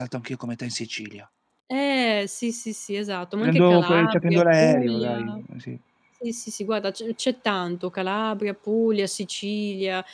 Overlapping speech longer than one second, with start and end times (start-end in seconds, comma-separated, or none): 3.4-5.4